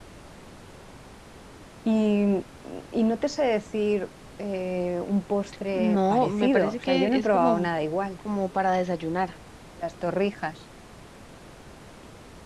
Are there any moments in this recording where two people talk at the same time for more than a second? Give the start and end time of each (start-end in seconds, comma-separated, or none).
5.7-7.7